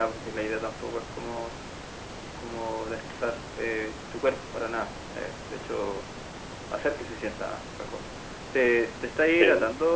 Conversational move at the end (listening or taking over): listening